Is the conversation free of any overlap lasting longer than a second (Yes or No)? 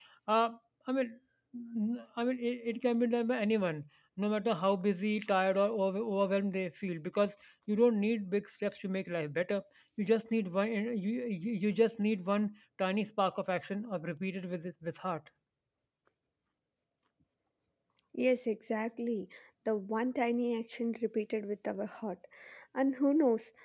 Yes